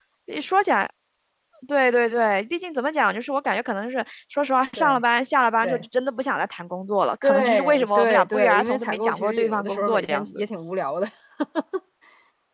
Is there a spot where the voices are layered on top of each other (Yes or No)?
Yes